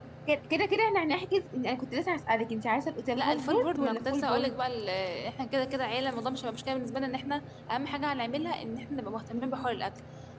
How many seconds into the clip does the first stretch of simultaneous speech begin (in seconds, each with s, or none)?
3.2 s